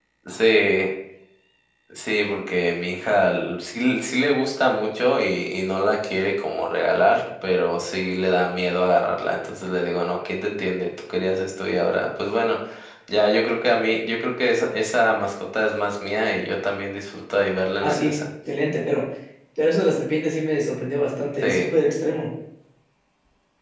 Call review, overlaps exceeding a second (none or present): none